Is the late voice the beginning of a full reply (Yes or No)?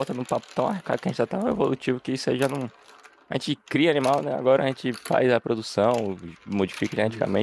No